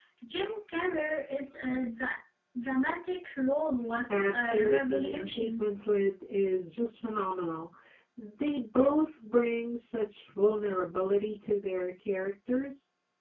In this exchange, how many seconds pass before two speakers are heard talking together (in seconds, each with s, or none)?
4.1 s